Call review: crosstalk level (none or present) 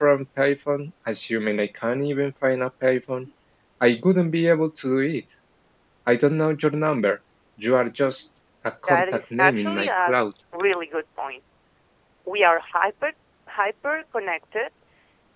present